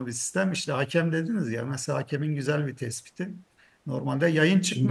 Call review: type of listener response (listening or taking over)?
listening